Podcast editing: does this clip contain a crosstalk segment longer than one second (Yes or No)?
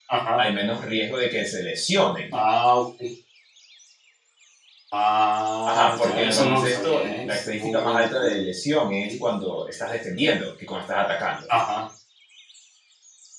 Yes